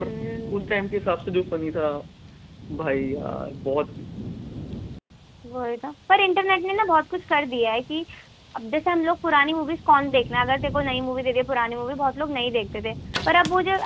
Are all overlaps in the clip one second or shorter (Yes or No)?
Yes